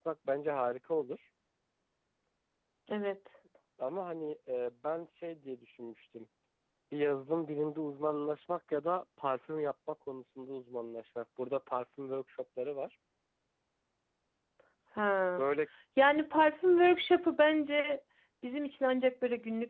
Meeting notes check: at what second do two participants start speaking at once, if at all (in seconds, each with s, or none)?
none